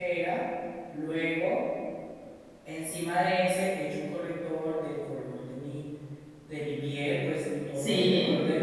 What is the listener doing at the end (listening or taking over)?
listening